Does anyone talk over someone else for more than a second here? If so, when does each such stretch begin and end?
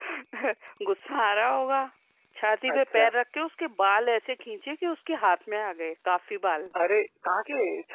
none

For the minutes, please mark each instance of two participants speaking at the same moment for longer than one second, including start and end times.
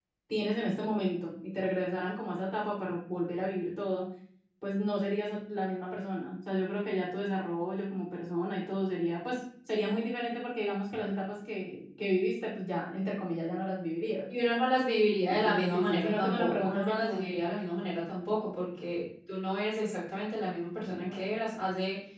15.3-17.3

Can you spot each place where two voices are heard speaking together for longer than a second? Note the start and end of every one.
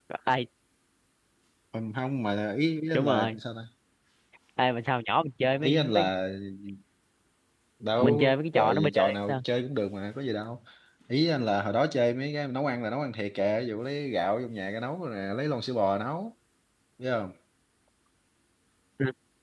8.0-9.4

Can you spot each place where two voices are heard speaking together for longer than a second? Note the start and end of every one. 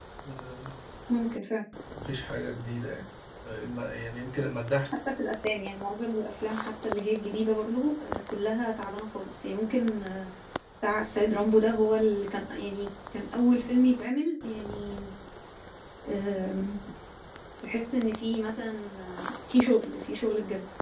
none

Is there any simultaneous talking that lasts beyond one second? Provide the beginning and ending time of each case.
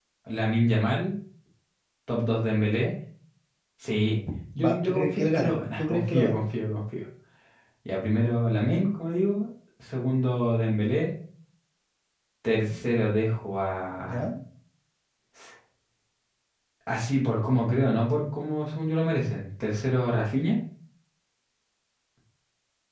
4.6-6.4

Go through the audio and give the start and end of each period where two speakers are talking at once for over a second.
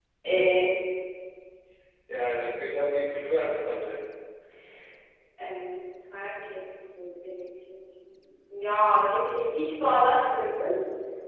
none

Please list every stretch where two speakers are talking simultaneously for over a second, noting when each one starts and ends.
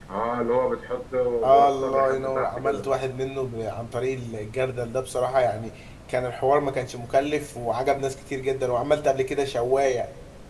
1.4-2.9

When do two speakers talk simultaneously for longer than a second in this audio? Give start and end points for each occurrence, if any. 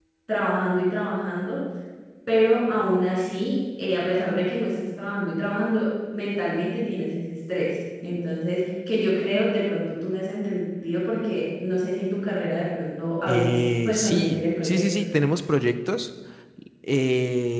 13.3-15.1

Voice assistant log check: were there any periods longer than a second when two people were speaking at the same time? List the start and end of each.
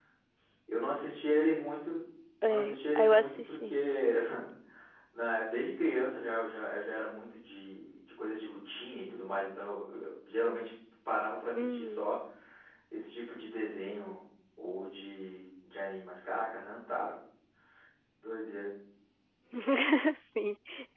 2.5-3.8

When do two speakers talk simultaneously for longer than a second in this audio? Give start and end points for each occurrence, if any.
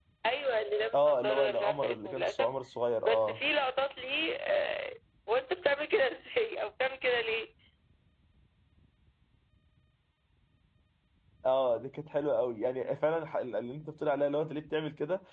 0.9-2.5

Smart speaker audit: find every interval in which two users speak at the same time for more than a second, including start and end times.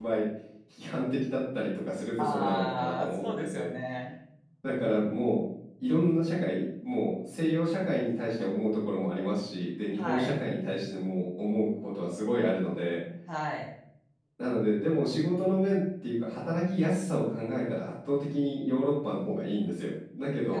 2.2-3.7

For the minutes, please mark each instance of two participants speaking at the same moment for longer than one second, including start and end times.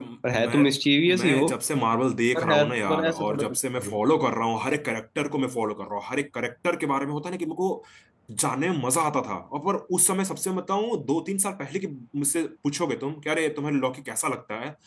2.4-4.0

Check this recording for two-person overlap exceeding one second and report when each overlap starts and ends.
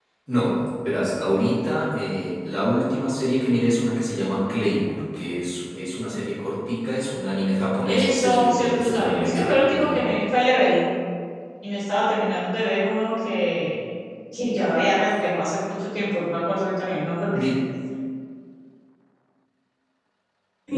7.8-10.0

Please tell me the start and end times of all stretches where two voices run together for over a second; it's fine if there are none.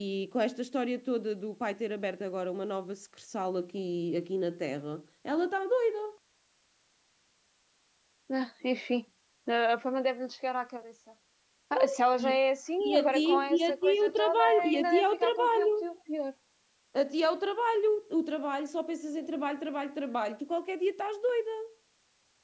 12.8-15.7

